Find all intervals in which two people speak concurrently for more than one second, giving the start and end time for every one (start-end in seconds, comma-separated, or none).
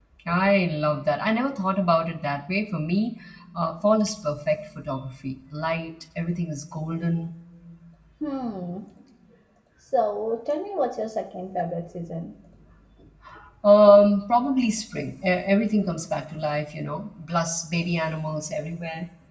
none